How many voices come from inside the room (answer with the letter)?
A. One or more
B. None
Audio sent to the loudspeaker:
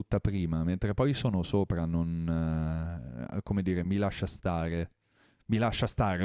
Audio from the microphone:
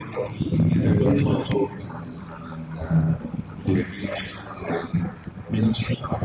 B